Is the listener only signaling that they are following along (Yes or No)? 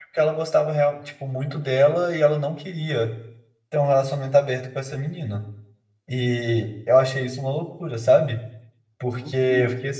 Yes